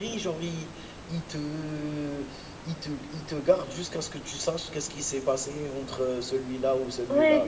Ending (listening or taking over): taking over